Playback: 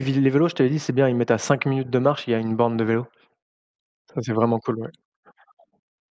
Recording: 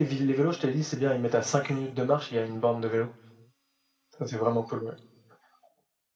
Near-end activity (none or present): none